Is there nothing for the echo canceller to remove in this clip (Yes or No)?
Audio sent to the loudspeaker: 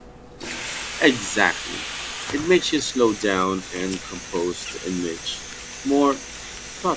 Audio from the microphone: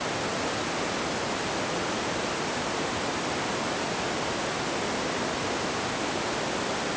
Yes